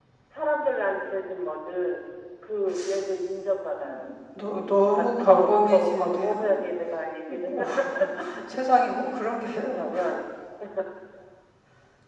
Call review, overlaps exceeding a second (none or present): present